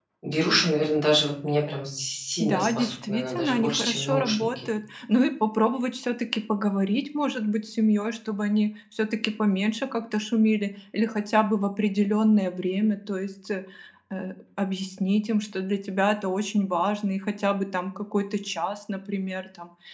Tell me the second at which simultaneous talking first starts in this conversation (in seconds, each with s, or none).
2.4 s